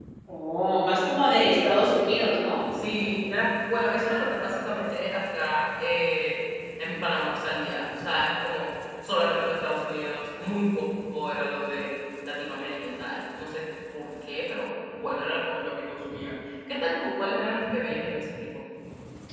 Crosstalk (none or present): none